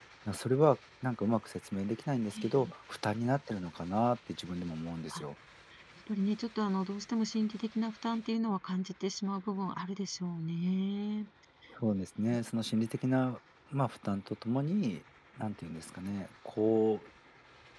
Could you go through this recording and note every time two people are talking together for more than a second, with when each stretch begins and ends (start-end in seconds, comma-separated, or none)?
none